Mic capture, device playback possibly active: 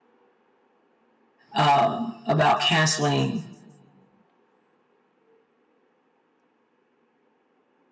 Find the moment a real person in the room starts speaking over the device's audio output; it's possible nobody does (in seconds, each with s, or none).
1.5 s